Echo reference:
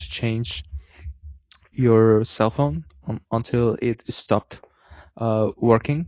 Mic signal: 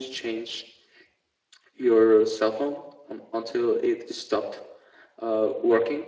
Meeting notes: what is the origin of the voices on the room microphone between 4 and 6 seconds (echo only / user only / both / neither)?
echo only